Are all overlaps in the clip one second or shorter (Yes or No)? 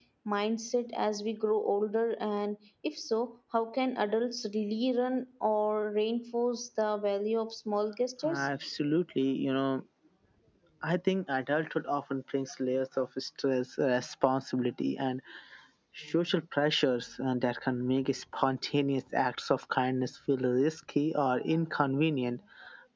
Yes